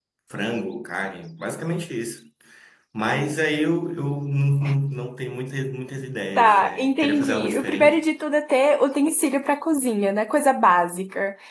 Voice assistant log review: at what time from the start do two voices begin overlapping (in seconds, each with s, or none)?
6.4 s